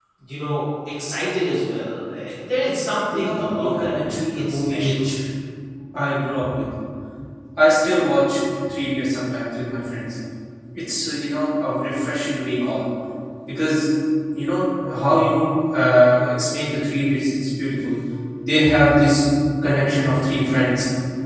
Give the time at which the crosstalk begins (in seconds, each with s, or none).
3.1 s